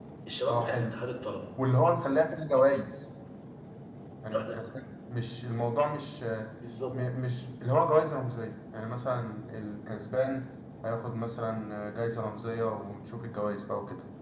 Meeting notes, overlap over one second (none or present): none